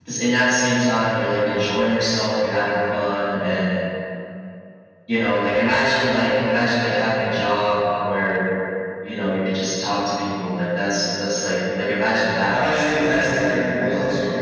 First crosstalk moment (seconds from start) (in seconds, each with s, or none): 12.5 s